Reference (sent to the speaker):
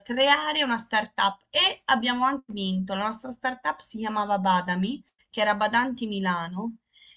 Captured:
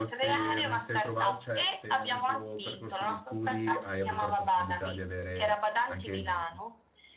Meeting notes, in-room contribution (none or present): present